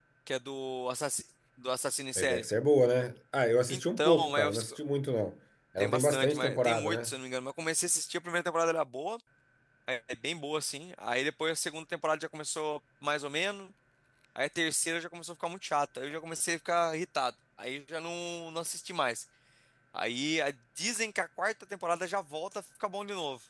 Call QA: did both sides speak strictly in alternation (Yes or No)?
No